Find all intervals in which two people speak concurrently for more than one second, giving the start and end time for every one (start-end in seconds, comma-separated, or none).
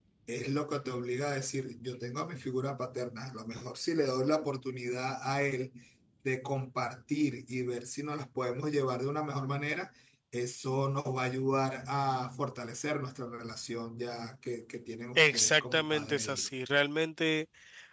15.2-16.5